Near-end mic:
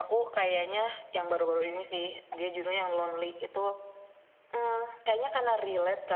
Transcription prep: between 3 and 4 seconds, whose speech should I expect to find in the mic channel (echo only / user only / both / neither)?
echo only